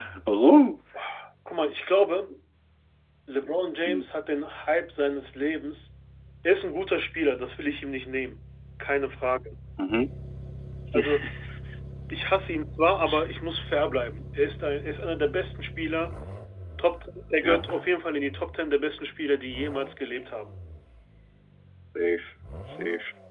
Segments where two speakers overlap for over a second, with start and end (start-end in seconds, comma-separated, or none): none